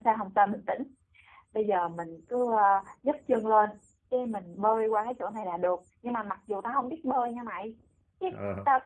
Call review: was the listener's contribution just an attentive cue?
Yes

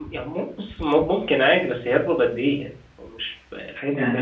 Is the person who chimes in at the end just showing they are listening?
No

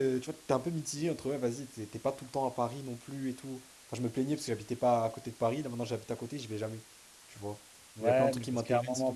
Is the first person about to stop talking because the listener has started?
Yes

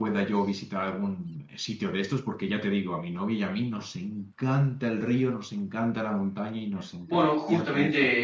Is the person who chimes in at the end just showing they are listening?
No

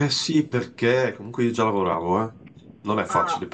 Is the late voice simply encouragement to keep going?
Yes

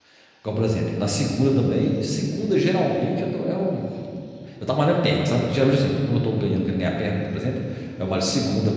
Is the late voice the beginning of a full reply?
No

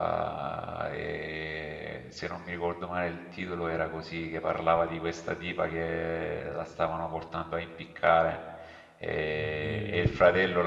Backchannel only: Yes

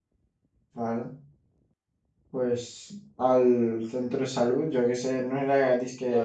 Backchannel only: No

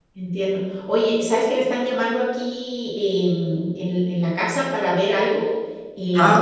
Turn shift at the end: No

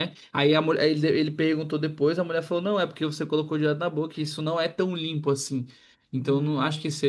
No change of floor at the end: Yes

